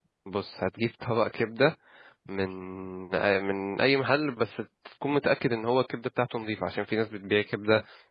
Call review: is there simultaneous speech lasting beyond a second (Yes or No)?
No